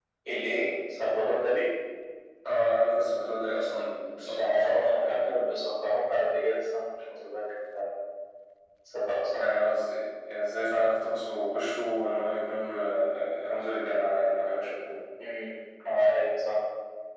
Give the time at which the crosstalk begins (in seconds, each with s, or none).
4.2 s